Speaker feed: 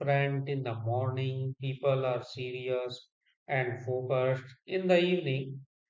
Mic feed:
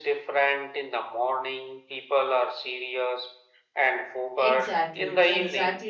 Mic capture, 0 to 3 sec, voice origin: echo only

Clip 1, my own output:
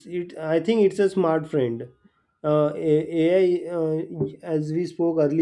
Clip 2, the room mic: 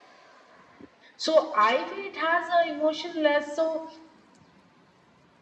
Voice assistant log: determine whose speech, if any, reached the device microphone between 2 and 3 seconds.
user only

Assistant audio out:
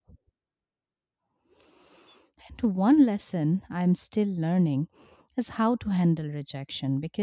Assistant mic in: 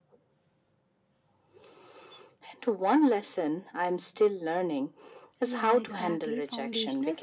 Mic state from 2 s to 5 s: echo only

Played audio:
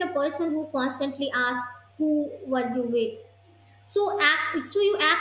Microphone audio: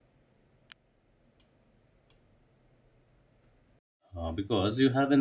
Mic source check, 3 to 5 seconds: user only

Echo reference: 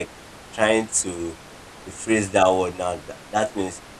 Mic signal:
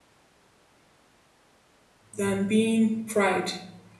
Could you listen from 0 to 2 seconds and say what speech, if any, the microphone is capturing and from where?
neither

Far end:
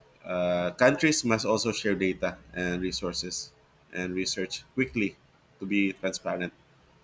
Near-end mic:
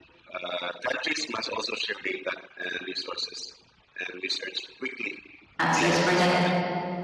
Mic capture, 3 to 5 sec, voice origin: echo only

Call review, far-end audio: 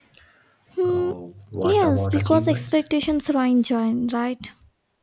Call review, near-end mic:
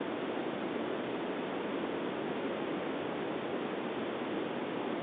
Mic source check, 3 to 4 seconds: neither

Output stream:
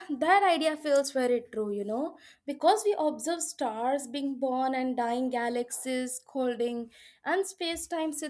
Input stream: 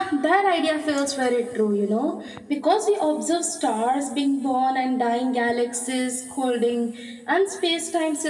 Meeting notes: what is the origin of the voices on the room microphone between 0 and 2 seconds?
echo only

